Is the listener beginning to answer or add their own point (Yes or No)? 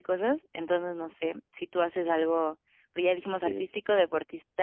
No